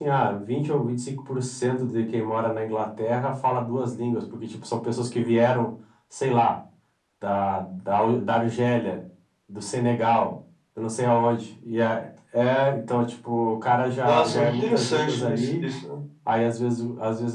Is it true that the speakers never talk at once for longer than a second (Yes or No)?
No